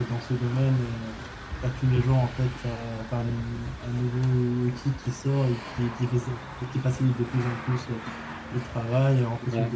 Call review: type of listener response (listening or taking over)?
listening